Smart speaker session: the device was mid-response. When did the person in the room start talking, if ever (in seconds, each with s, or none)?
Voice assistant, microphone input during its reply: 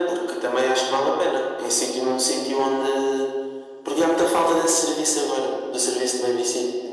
none